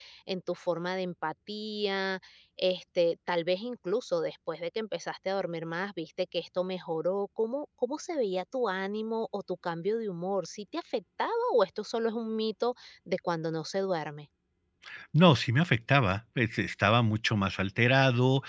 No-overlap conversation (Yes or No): Yes